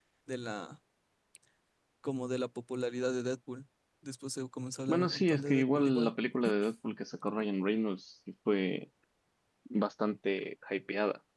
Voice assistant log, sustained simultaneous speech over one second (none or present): present